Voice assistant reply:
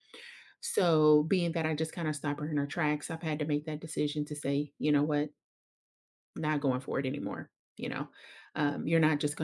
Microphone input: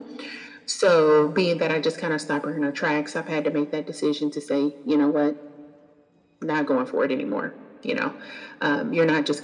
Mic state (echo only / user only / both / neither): echo only